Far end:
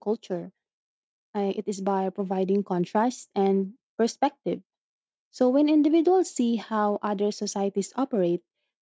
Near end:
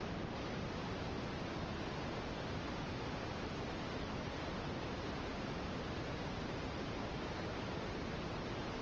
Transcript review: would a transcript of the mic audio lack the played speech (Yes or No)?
Yes